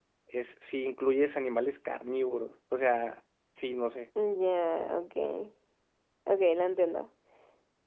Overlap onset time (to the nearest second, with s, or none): none